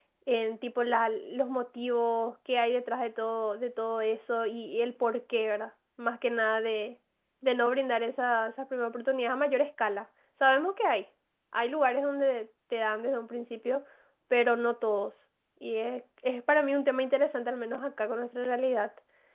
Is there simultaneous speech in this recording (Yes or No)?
No